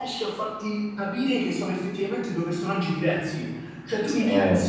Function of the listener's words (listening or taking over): listening